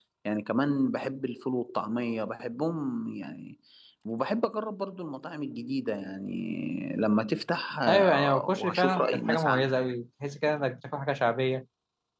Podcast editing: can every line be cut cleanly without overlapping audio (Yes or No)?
No